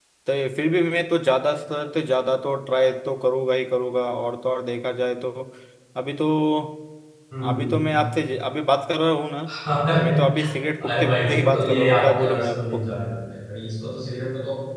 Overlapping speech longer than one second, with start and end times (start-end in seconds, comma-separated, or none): 10.8-12.8